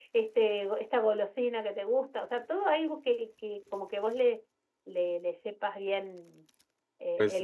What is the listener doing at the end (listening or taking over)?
taking over